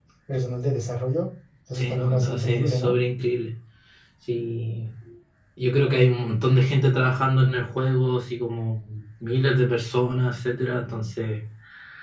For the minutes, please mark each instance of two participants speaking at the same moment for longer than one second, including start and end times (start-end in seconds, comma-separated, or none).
1.7-2.9